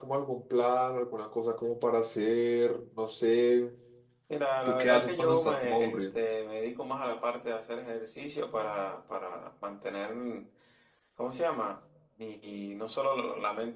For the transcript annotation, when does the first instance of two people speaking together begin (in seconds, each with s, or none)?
4.6 s